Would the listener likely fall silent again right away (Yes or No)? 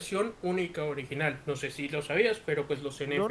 No